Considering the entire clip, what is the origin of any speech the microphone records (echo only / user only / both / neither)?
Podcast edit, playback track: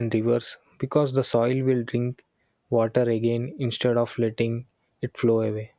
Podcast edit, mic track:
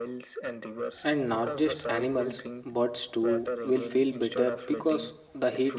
both